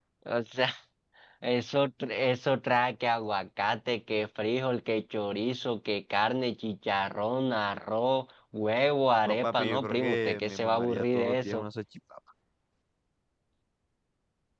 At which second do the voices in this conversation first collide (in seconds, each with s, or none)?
9.2 s